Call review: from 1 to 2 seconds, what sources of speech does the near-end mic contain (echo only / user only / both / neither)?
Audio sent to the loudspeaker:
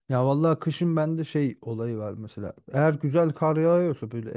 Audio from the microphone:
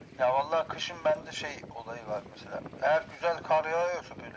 echo only